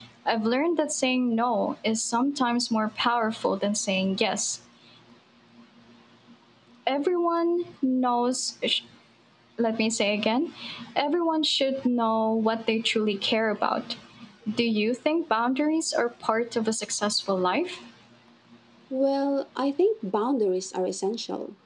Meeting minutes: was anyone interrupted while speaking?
No

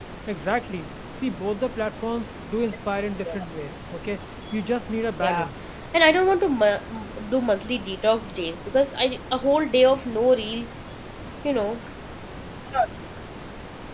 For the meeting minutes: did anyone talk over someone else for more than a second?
No

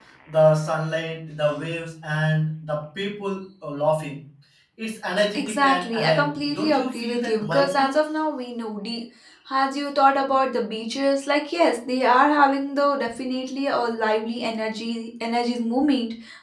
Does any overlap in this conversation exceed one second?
Yes, from 5.3 s

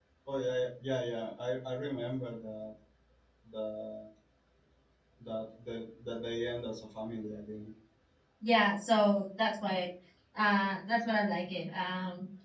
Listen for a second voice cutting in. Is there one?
No

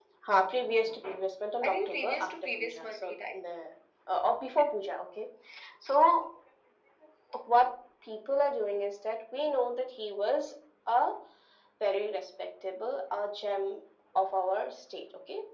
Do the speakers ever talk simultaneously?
Yes, from 1.6 s

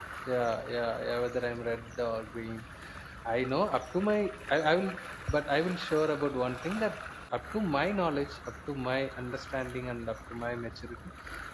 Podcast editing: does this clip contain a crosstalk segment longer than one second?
No

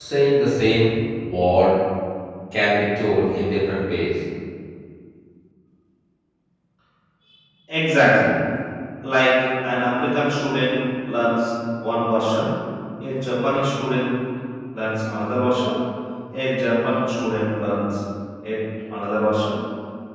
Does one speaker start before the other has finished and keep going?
No

